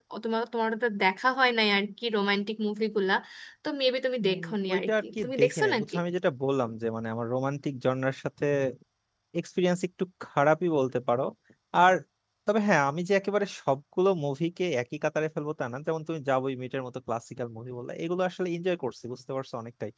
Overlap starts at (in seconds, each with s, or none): 4.2 s